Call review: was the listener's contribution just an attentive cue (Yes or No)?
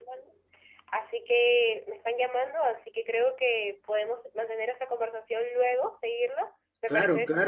No